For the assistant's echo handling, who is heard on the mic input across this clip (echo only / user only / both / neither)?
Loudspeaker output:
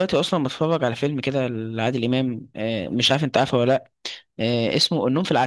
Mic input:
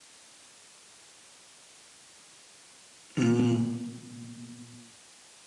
user only